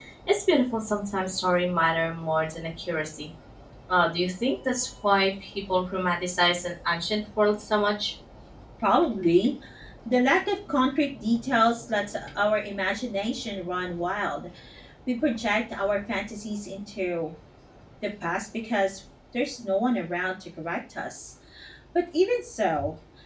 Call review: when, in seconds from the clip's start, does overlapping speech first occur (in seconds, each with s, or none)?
none